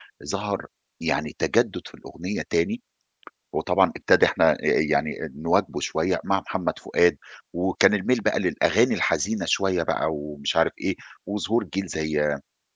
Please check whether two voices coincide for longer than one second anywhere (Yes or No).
No